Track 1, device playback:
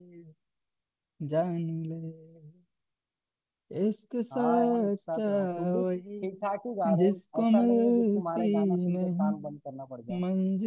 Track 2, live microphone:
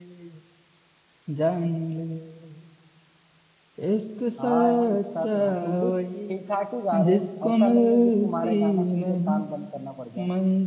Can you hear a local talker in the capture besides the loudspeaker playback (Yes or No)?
No